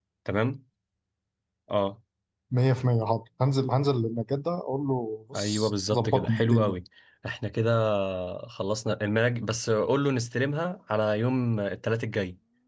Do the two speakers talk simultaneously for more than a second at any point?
Yes, from 5.3 s

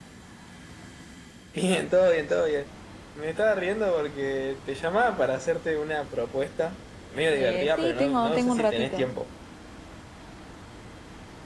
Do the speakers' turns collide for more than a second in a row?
Yes, from 7.3 s

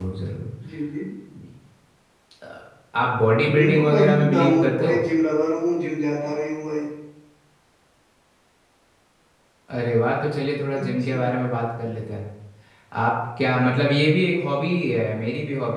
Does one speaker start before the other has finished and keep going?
Yes, from 3.5 s

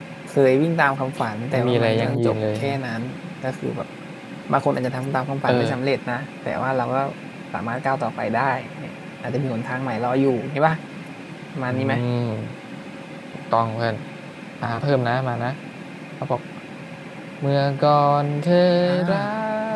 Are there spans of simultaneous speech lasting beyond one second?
Yes, from 1.5 s

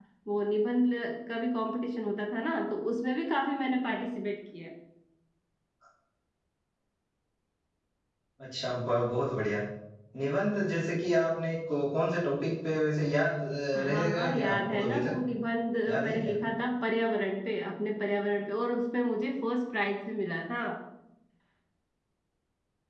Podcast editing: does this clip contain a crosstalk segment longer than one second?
Yes, from 13.9 s

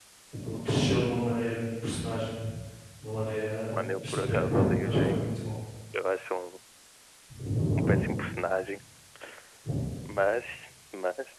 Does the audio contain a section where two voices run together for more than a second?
Yes, from 3.7 s

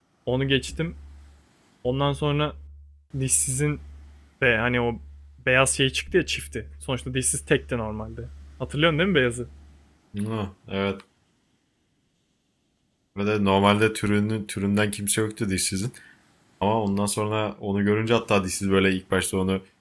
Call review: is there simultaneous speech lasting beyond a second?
No

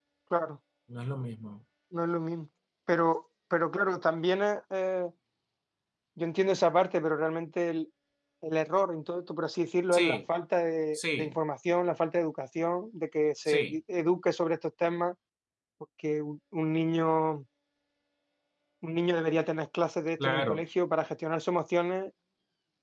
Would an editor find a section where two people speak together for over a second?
No

